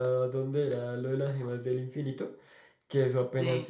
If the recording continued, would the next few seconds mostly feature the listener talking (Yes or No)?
No